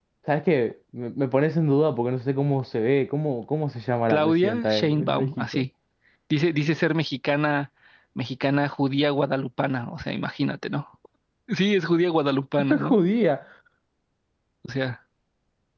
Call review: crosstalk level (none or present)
present